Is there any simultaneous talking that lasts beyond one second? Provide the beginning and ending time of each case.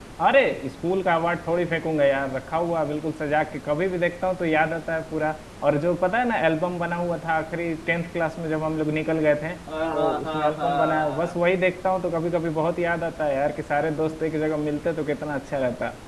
9.9-11.3

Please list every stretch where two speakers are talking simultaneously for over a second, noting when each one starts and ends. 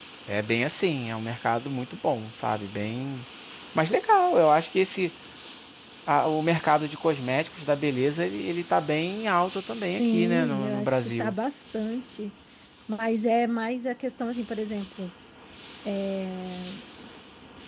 9.9-11.3

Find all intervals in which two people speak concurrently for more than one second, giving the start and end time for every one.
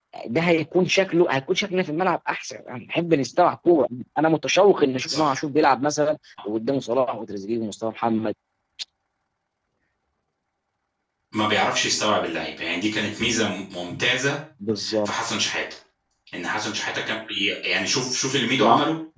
none

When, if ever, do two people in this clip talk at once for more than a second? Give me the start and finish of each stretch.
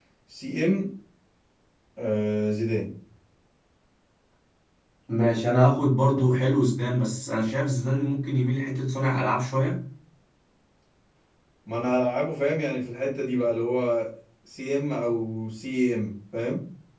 none

